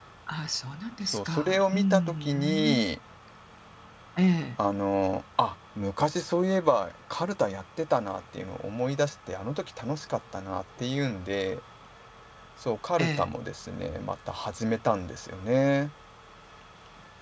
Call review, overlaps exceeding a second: present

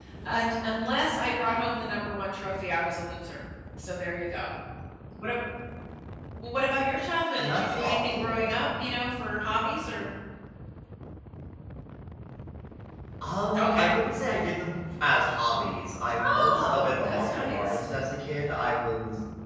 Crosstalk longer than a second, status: present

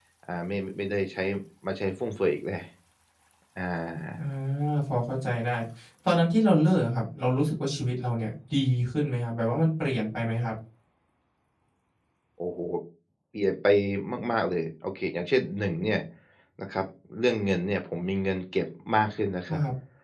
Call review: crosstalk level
none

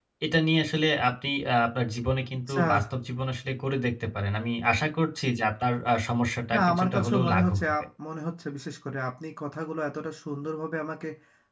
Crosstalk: present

